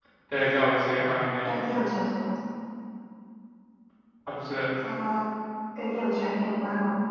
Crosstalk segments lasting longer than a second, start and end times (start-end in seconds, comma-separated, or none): none